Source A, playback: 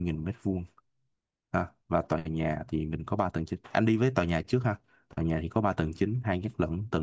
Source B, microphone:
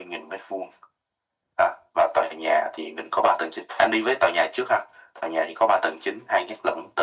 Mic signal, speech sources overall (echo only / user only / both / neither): echo only